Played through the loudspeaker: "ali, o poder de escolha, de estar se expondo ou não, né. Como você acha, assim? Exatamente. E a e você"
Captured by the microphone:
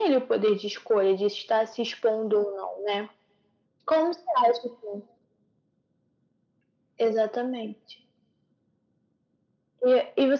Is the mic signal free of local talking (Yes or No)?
Yes